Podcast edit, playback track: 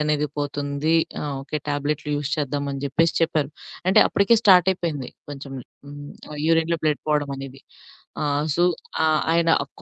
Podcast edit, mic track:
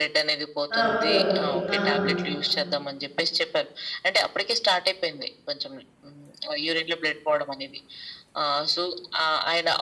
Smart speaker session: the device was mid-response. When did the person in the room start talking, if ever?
0.8 s

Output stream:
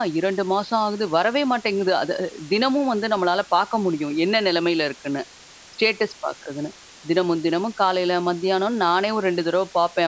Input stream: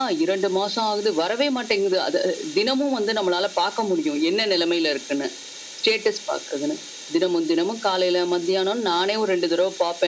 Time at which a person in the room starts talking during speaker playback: none

